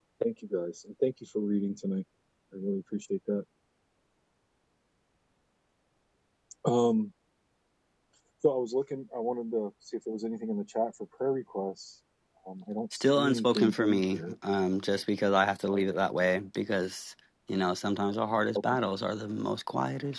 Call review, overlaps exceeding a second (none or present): present